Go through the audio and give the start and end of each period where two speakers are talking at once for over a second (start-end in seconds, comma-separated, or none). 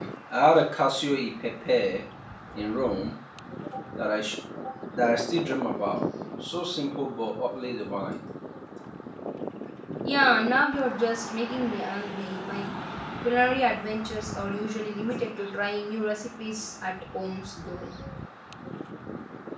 none